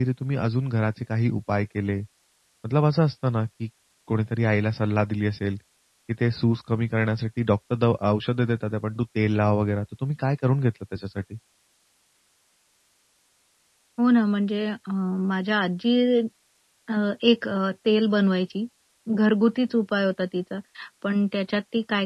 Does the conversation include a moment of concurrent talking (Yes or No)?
No